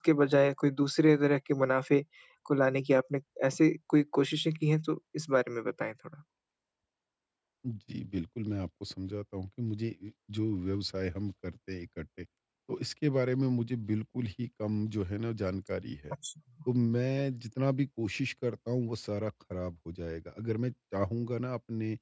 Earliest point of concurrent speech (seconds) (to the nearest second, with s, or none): none